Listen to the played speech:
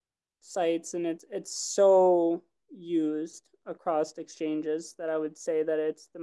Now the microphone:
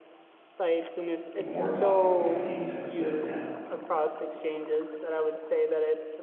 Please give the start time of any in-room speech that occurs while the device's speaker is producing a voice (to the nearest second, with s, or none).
1 s